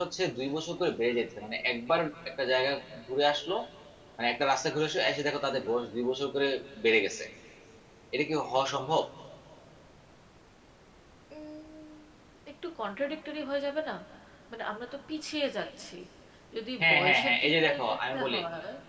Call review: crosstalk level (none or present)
present